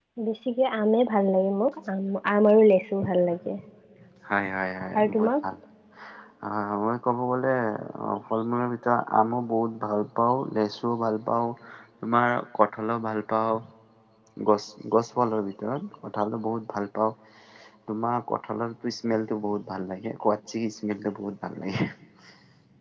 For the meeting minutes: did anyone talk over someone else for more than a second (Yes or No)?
No